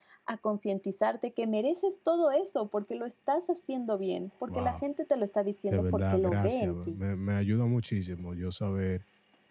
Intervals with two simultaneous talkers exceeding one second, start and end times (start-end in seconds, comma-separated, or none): 5.7-7.0